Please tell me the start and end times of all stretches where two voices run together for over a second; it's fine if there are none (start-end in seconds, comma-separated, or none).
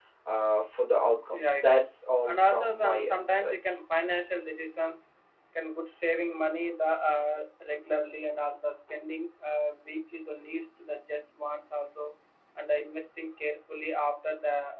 2.3-3.5